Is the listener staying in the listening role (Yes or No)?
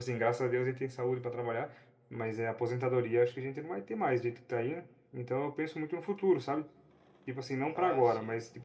Yes